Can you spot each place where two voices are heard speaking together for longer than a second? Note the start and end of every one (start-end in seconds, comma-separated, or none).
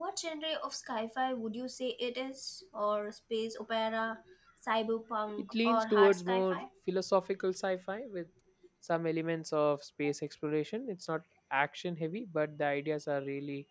5.4-6.6